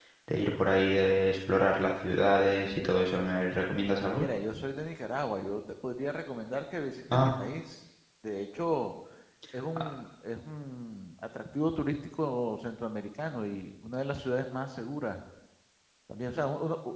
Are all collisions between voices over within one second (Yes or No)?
Yes